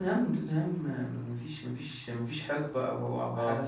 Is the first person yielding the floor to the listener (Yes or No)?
No